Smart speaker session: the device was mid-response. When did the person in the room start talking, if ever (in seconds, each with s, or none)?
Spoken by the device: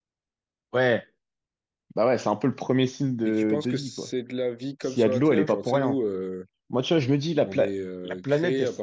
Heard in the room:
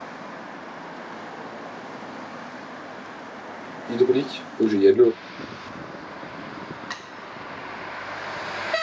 3.9 s